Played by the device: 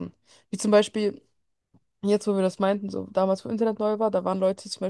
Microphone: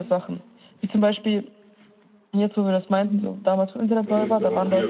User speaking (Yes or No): Yes